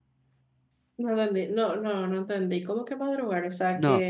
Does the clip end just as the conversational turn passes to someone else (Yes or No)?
Yes